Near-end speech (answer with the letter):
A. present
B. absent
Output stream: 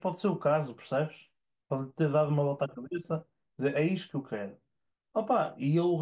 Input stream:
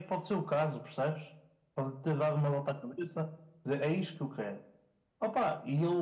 B